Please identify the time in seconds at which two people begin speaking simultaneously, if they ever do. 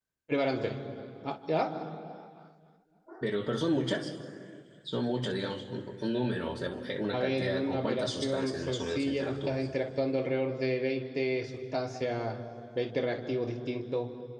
7.1 s

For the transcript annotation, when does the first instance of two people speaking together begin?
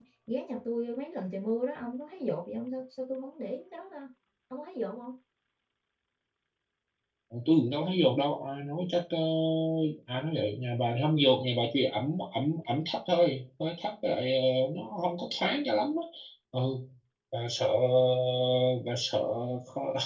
none

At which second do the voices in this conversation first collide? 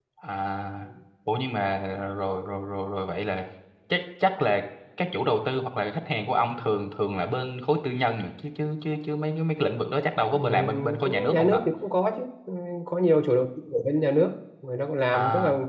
10.3 s

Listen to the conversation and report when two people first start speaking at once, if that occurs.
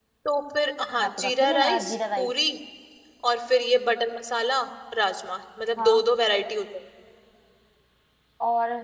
1.0 s

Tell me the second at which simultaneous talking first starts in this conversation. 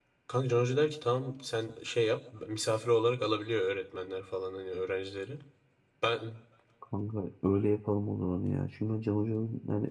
none

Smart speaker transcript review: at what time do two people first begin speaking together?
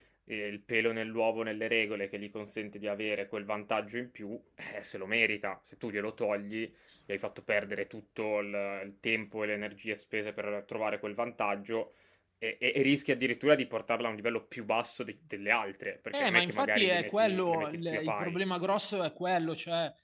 16.1 s

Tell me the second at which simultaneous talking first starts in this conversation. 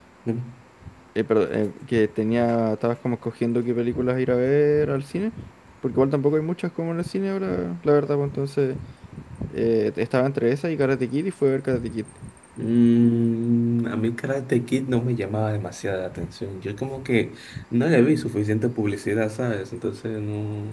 none

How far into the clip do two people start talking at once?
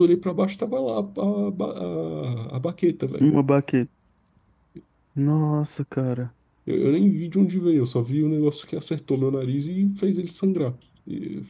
none

